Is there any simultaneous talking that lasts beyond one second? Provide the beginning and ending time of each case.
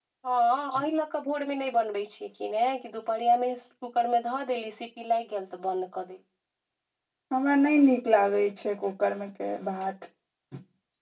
none

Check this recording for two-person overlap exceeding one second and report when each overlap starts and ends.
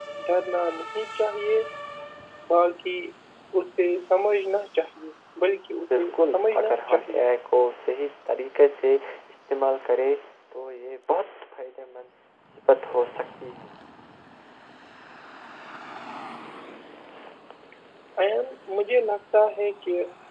5.9-7.2

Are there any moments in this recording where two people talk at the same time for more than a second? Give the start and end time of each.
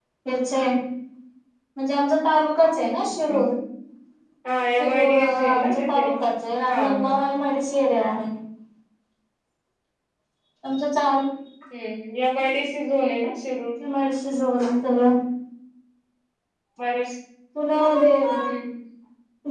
4.8-6.0

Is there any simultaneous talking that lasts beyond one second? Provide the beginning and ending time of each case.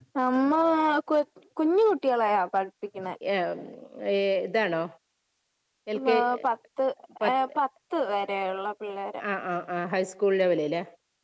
none

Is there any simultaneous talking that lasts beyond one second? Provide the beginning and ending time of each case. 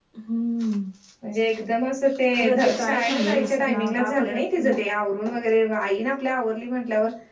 2.3-4.7

